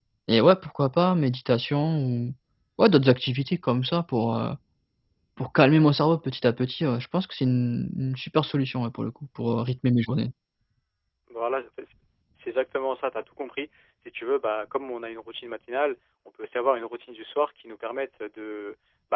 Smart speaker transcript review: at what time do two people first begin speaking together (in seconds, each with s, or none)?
none